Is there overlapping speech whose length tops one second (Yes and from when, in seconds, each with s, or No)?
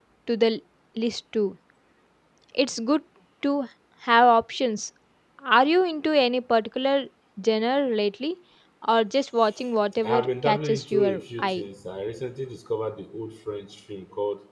Yes, from 10.0 s